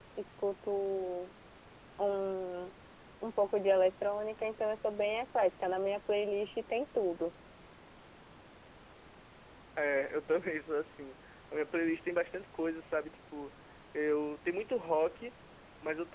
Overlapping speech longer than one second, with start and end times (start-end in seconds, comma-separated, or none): none